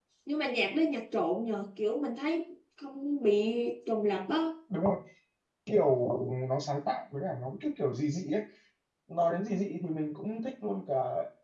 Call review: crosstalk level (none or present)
none